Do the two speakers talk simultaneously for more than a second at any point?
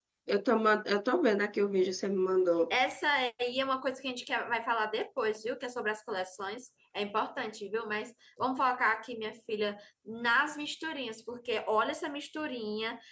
No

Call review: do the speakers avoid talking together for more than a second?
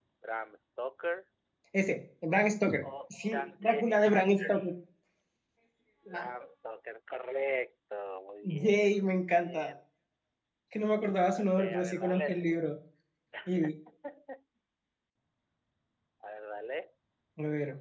No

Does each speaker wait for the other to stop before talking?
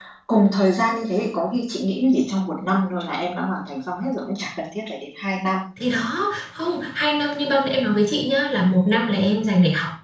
Yes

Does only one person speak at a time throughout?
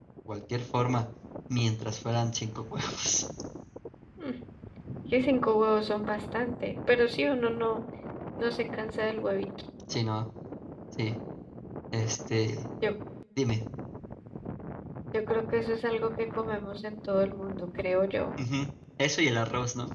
Yes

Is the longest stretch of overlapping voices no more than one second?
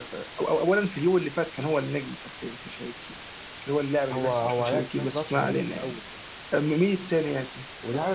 No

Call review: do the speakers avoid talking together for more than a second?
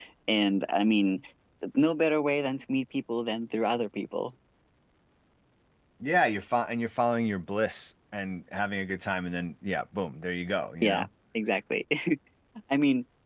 Yes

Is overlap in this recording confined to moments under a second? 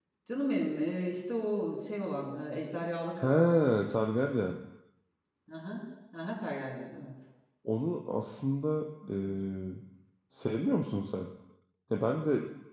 Yes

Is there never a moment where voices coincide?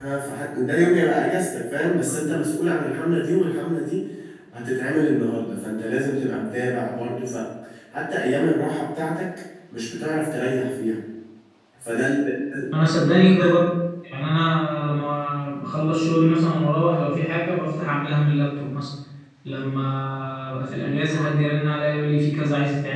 Yes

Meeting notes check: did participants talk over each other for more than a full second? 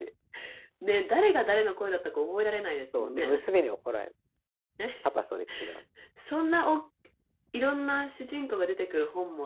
No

